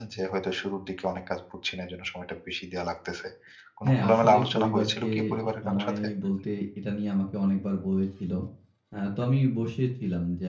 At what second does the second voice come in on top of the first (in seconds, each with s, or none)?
3.9 s